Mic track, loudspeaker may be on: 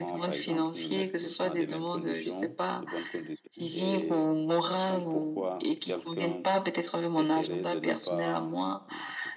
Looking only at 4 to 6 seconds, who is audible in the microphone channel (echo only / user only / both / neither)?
both